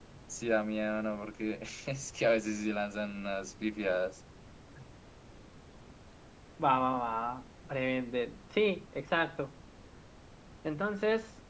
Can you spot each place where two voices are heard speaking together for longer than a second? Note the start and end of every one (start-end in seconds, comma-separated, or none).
none